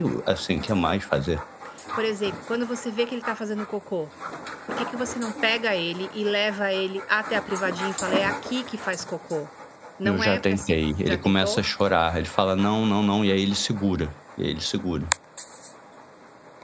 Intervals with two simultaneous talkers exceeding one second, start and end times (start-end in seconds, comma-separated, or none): 10.0-11.6